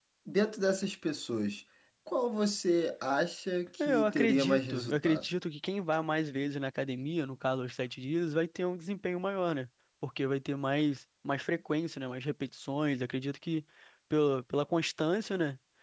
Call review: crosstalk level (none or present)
present